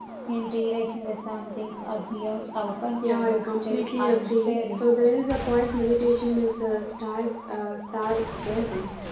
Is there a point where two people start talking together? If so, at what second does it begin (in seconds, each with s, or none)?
3.0 s